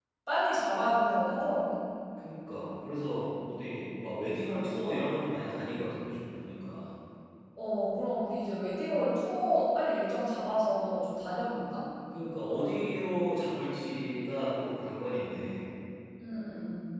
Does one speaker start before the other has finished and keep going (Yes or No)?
No